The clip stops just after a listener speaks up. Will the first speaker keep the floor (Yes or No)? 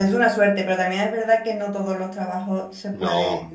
Yes